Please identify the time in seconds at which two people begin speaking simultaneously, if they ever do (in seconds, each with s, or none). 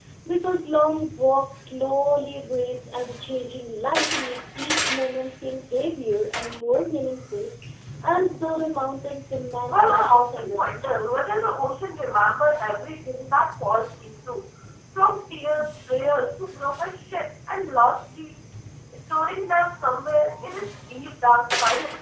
9.7 s